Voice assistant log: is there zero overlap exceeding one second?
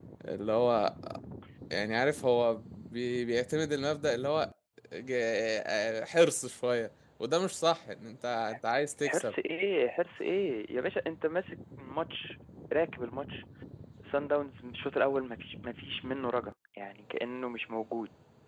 Yes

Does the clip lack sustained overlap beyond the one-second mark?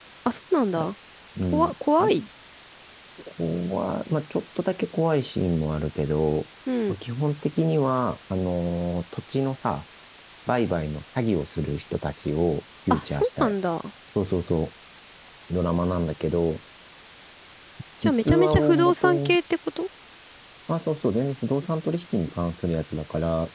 No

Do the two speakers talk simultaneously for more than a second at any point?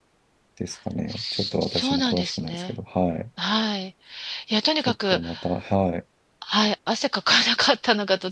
Yes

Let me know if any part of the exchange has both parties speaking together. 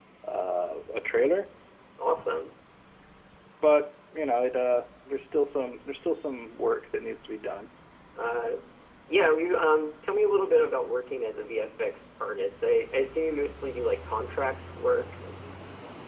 No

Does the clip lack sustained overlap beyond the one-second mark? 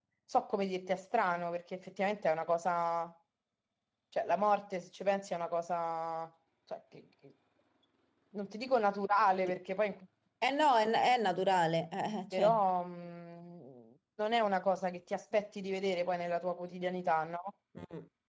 Yes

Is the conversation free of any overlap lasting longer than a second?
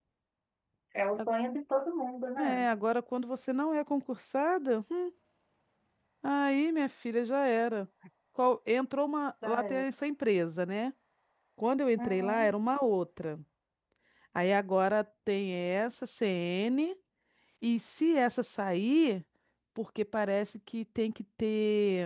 Yes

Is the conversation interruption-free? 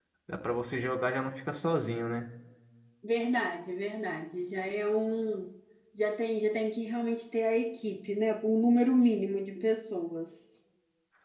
Yes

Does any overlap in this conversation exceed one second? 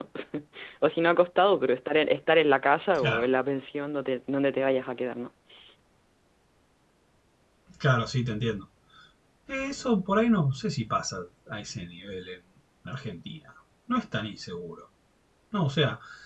No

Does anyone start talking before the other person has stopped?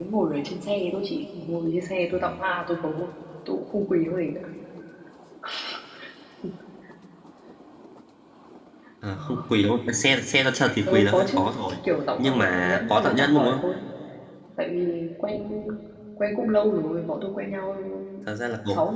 Yes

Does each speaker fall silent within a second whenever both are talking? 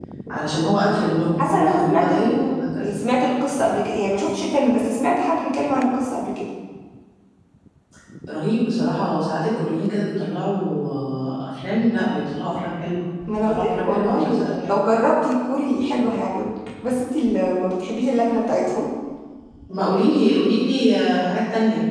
No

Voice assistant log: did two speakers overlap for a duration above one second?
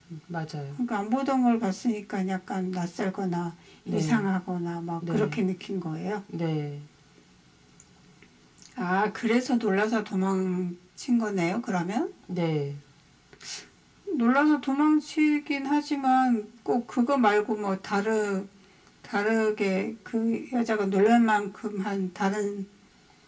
No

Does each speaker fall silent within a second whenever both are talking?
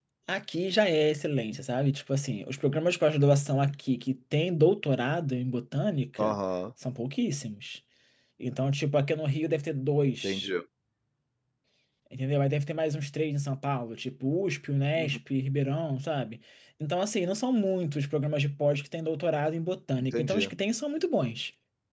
Yes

